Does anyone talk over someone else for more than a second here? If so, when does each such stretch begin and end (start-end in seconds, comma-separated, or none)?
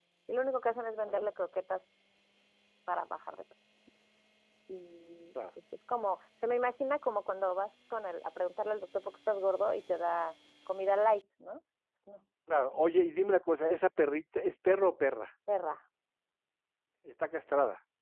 none